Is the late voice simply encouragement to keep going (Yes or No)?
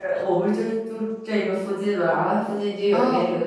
Yes